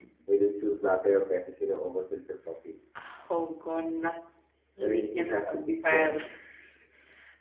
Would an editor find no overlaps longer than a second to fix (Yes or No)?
No